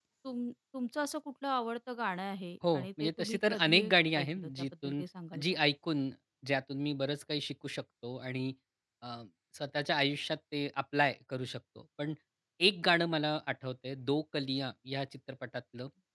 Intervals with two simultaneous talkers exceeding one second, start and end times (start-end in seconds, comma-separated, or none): 2.7-5.0